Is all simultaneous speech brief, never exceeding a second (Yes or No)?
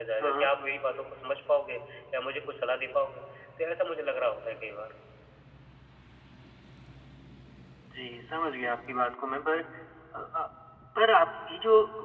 Yes